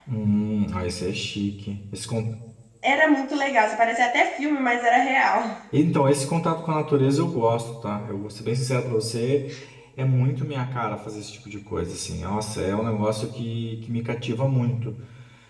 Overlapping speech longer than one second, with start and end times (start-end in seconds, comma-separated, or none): none